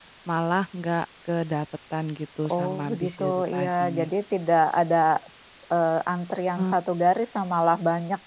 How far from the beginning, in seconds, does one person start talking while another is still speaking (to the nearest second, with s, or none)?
2 s